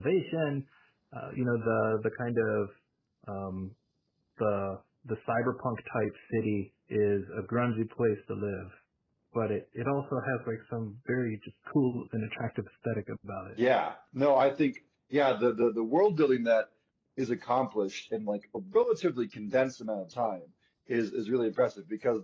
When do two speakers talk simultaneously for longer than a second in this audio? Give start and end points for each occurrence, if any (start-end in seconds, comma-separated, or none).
none